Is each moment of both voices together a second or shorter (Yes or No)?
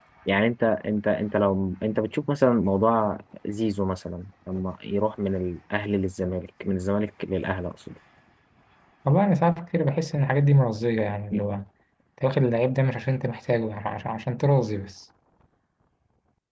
Yes